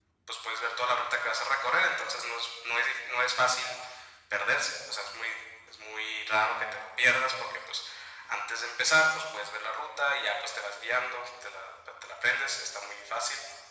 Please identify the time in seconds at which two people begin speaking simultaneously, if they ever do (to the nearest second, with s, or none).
none